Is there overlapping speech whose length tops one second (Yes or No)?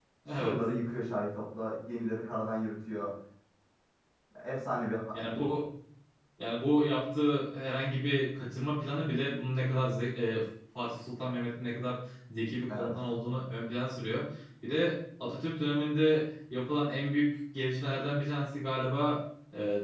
No